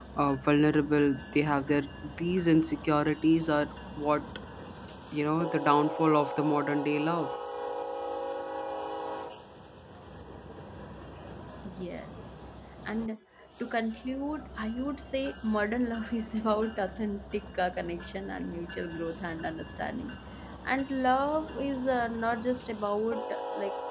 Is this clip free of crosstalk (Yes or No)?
Yes